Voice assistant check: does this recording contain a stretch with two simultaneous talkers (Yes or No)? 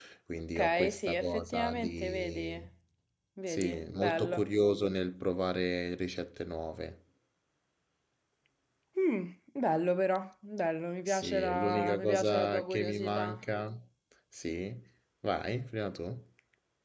Yes